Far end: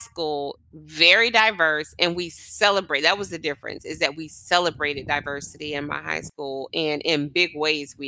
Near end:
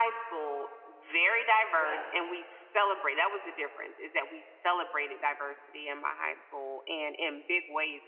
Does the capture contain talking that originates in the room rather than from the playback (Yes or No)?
Yes